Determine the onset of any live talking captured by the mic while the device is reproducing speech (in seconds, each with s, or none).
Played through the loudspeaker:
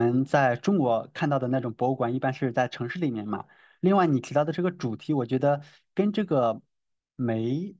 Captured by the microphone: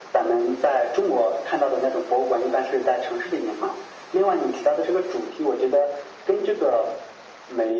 none